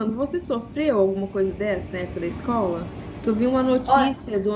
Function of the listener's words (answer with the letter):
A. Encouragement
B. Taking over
A